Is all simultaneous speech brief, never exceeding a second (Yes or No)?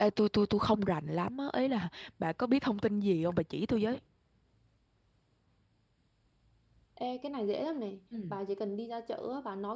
Yes